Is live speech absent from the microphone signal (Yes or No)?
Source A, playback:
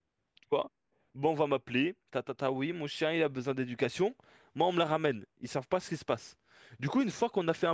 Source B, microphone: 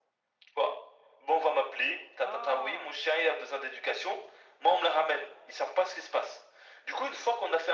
No